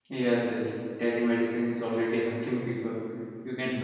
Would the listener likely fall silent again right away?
Yes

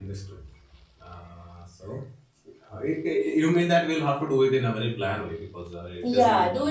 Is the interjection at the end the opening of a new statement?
Yes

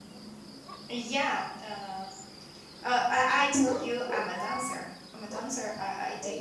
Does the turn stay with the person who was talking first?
Yes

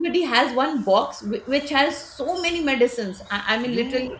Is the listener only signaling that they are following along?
No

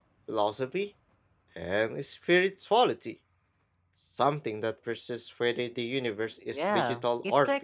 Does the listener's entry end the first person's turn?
Yes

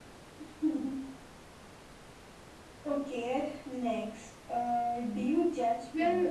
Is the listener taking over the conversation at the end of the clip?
Yes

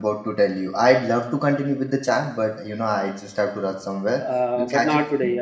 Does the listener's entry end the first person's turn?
Yes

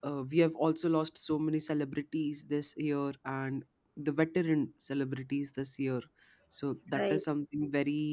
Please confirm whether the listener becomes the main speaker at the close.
No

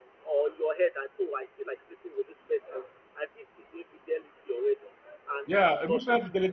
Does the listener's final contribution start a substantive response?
Yes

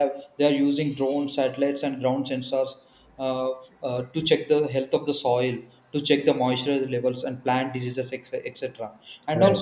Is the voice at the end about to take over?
No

